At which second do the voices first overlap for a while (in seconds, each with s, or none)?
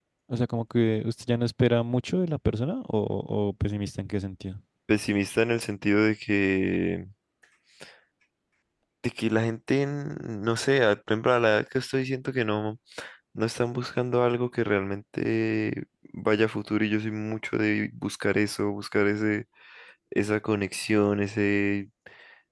none